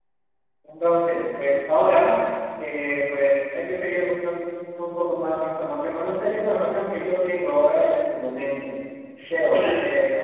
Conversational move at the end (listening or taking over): taking over